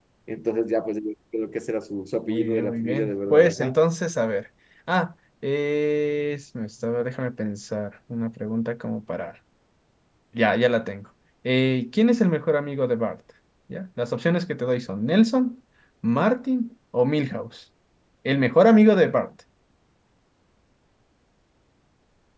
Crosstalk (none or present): present